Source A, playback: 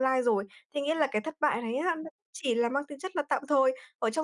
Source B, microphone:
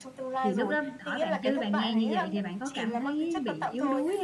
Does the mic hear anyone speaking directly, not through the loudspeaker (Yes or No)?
Yes